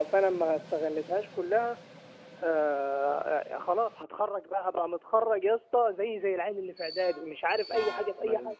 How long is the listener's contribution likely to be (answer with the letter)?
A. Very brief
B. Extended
B